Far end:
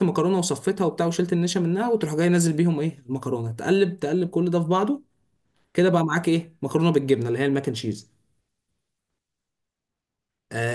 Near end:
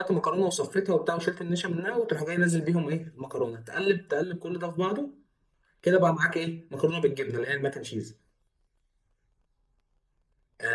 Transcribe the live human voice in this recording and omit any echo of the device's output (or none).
none